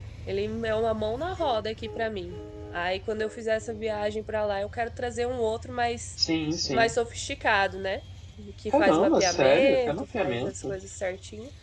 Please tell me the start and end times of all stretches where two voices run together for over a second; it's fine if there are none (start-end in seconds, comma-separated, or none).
8.8-10.8